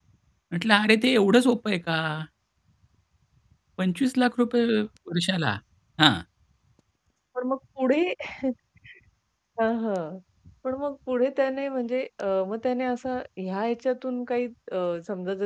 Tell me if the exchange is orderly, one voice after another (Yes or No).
Yes